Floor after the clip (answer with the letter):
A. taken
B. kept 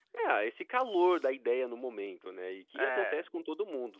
B